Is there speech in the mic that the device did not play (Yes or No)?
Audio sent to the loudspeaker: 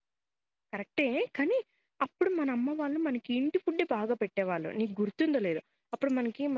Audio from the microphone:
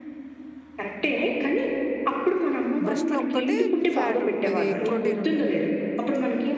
Yes